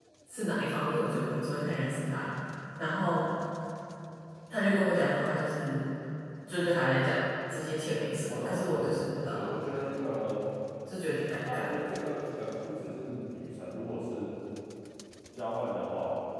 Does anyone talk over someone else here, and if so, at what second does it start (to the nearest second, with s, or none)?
8 s